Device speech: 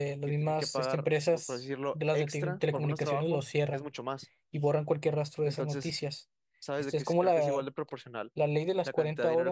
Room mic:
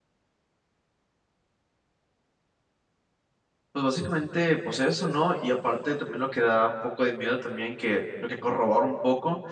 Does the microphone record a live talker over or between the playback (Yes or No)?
Yes